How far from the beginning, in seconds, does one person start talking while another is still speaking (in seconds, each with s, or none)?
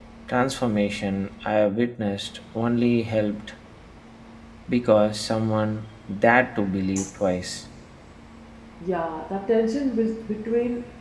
none